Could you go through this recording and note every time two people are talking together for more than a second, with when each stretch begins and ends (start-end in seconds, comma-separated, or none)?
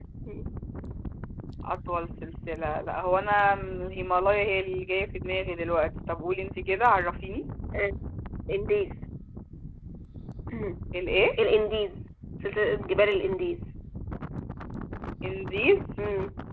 none